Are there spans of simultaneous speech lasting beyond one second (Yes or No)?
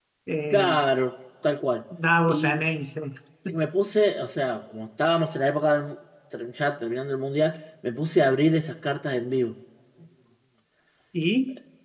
No